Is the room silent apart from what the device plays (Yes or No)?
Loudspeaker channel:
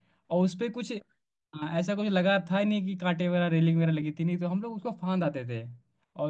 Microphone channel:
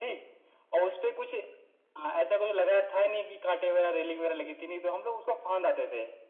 Yes